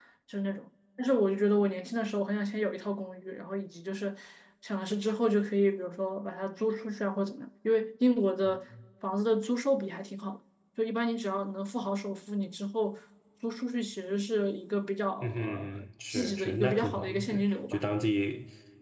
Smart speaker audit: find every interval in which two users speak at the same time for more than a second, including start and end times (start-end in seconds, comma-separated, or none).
15.2-17.8